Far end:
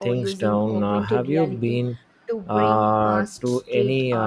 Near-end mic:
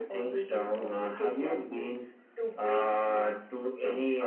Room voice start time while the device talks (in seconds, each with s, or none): none